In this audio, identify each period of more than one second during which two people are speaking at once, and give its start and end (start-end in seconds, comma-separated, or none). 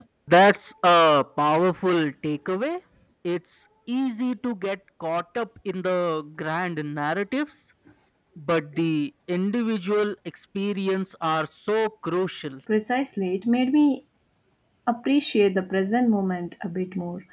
none